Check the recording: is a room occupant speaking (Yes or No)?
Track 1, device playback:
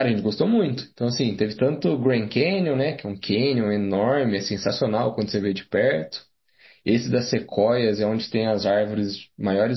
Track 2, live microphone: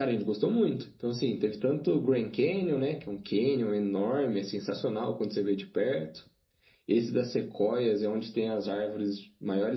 No